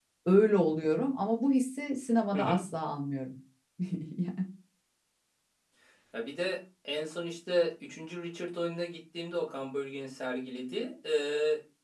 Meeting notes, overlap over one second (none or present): none